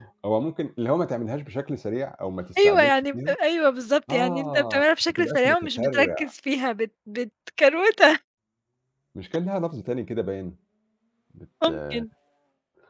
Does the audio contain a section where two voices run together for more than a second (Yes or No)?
Yes